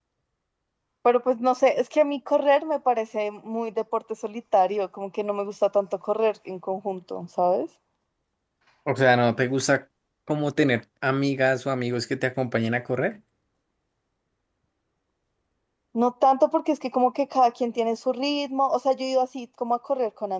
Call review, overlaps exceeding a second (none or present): none